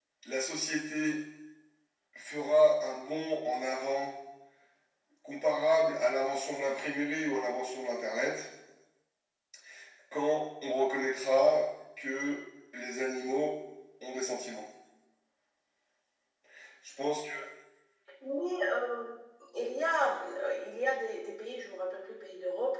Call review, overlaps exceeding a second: none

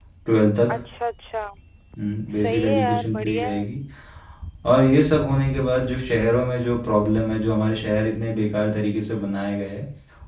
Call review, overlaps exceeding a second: present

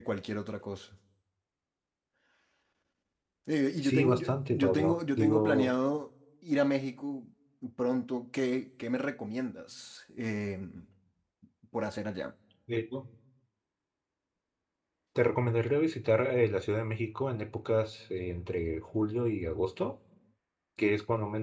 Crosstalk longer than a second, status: present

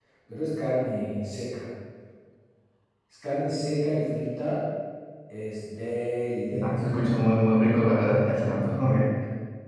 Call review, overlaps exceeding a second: none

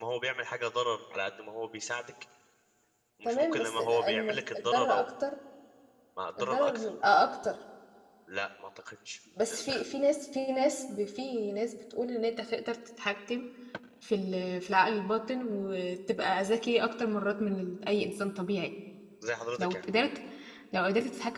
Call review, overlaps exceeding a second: present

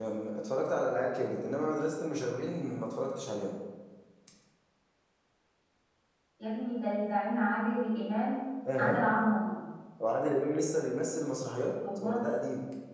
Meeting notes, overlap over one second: none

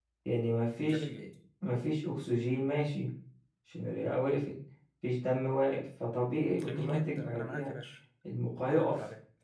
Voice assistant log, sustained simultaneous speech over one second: present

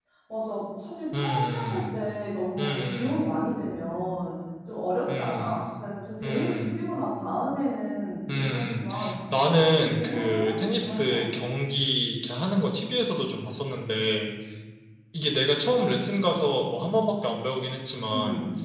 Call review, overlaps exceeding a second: present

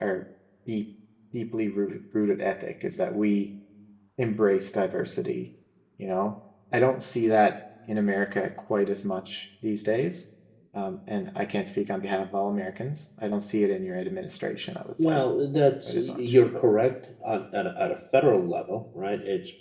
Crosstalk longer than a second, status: none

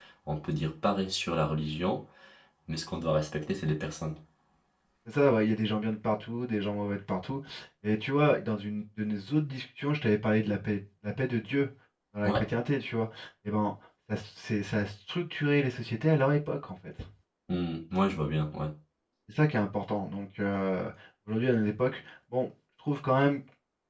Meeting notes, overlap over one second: none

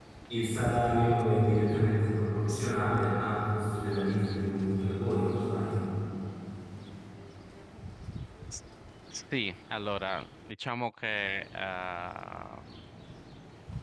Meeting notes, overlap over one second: none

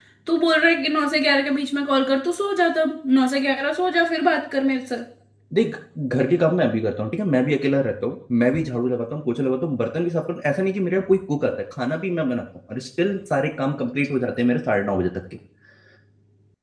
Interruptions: none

